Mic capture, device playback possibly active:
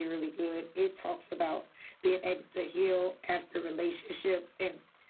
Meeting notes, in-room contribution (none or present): none